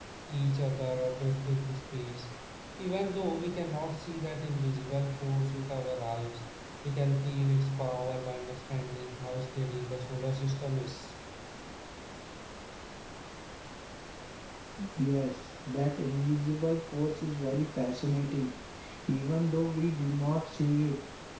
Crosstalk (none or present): none